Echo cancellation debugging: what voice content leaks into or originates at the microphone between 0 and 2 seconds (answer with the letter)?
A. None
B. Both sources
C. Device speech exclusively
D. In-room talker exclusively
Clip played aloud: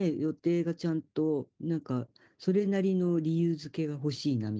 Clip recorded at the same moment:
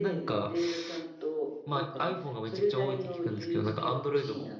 B